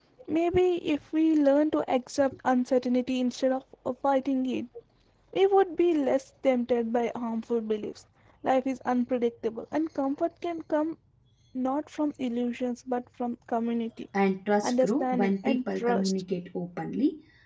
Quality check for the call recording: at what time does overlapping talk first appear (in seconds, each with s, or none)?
14.6 s